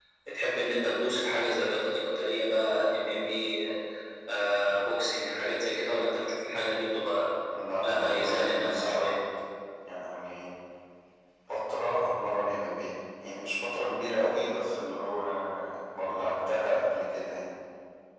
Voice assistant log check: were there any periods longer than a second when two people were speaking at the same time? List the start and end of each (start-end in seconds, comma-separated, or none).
7.8-9.0